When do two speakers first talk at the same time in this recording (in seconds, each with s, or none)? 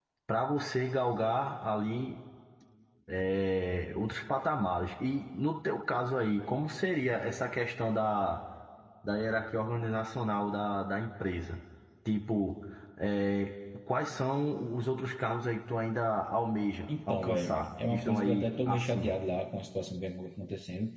16.9 s